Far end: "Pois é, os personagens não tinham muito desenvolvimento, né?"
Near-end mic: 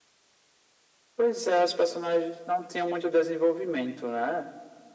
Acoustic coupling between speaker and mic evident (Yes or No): Yes